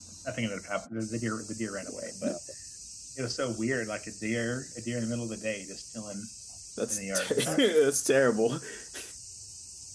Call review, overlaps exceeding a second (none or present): none